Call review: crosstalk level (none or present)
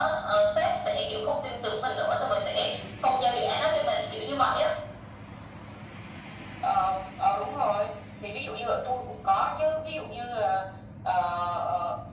none